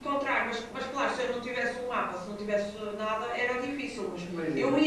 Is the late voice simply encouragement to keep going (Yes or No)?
Yes